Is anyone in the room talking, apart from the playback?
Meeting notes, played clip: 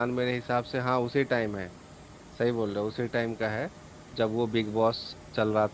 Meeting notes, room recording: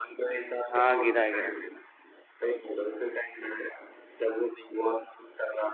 Yes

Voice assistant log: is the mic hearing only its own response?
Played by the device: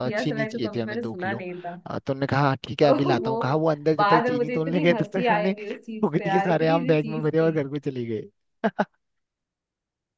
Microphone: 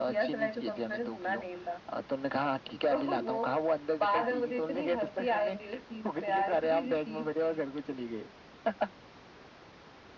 Yes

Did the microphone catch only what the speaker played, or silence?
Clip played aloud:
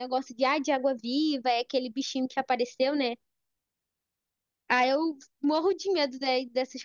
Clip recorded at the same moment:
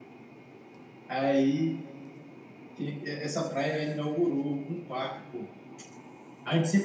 No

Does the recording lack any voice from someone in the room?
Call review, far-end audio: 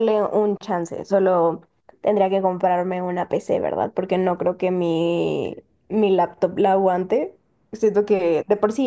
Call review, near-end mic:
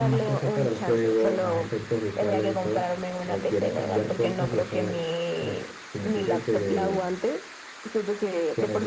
No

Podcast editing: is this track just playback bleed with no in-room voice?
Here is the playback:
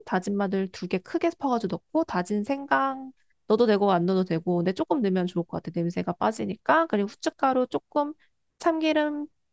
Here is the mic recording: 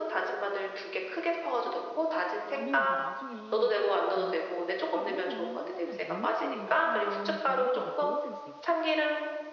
No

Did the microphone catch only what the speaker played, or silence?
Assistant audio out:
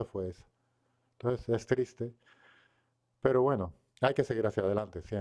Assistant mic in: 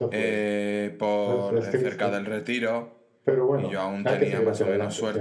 No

